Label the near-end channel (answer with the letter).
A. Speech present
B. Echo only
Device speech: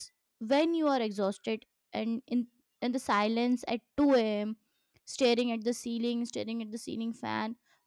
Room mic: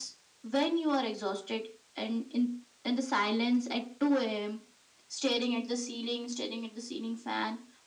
B